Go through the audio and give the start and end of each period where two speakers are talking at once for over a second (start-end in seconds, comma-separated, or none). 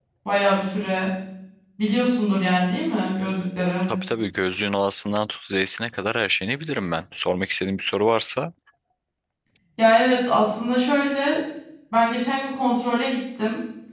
none